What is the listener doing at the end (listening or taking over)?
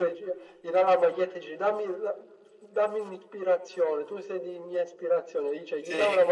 listening